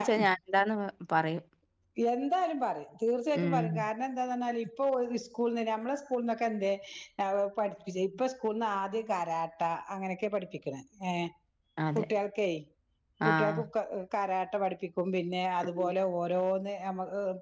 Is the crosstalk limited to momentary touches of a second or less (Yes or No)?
Yes